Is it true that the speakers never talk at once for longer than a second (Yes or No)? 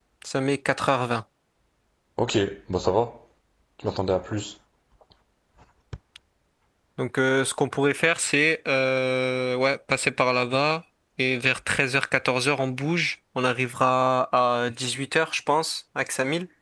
Yes